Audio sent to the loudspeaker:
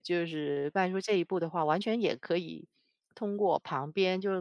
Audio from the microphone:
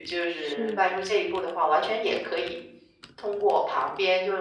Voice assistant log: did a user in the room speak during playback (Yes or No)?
Yes